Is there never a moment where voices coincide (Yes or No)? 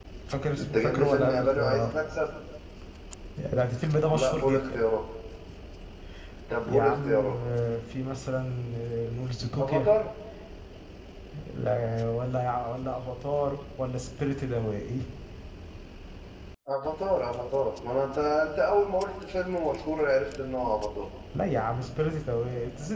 No